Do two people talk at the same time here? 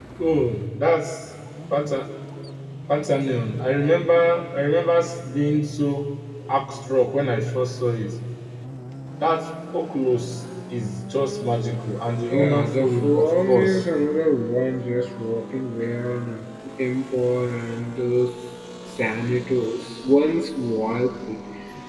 Yes, from 12.3 s

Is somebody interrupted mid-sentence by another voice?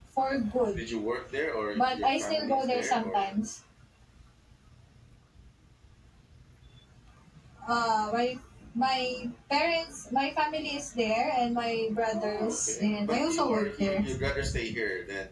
Yes, from 1.8 s

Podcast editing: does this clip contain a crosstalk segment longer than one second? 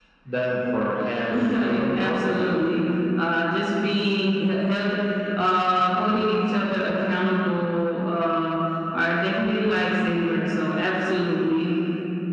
Yes, from 1.3 s

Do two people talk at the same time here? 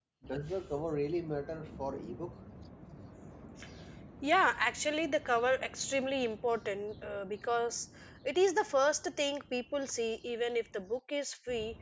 No

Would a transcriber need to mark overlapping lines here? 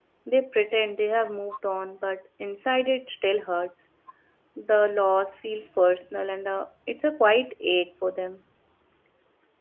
No

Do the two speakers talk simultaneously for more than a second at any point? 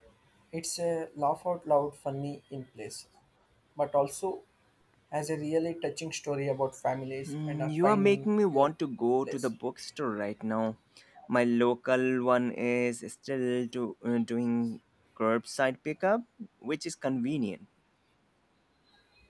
Yes, from 7.2 s

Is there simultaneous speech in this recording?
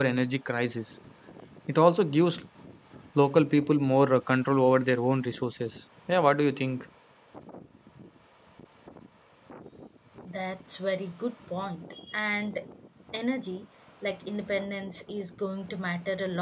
No

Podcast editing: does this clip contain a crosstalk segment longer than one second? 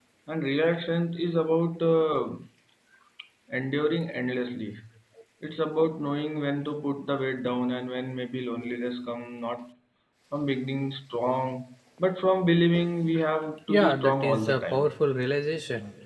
Yes, from 13.7 s

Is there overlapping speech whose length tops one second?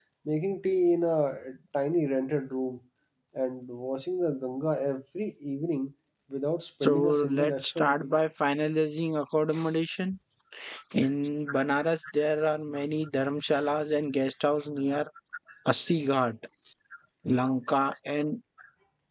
Yes, from 6.8 s

